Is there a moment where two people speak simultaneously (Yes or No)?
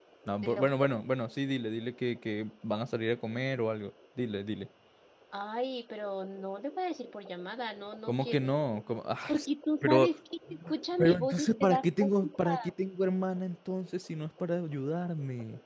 Yes